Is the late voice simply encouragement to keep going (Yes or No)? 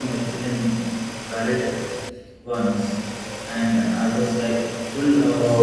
No